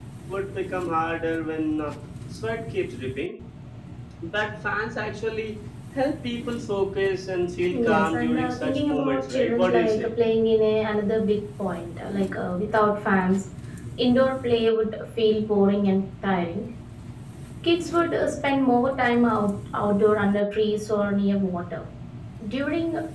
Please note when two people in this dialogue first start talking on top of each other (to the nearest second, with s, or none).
8 s